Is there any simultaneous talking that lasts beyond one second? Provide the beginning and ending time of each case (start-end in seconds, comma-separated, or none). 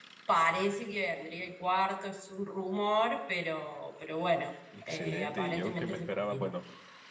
4.8-6.5